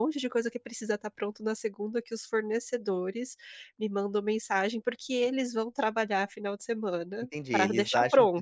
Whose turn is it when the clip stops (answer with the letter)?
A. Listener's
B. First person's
A